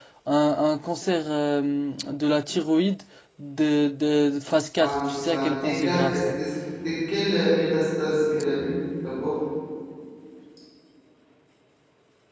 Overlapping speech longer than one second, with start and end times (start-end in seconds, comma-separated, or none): 4.8-6.4